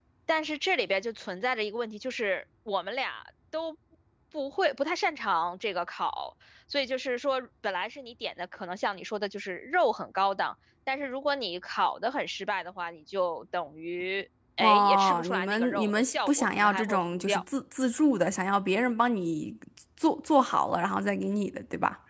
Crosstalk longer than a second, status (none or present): present